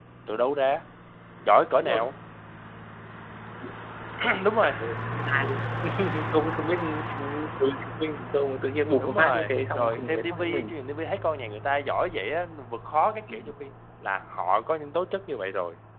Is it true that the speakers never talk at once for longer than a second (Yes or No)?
No